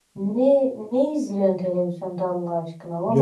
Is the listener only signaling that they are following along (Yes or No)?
Yes